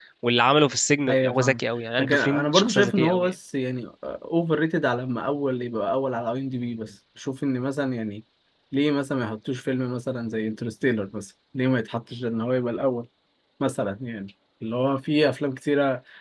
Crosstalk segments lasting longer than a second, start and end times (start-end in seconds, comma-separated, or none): 2.0-3.3